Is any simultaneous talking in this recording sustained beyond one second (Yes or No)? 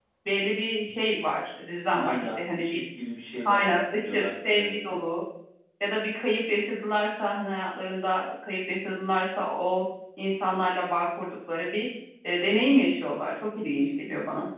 Yes